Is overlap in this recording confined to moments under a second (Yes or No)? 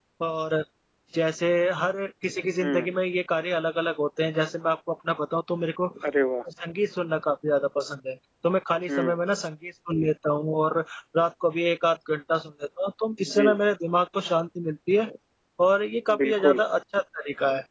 Yes